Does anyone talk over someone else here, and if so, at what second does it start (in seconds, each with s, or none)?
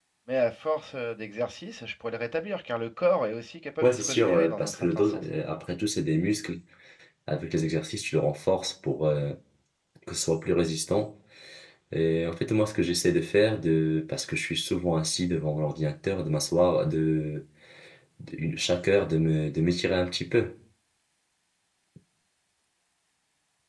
3.8 s